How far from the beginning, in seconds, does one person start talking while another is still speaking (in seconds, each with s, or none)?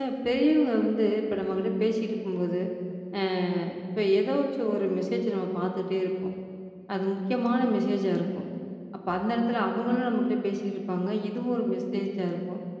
none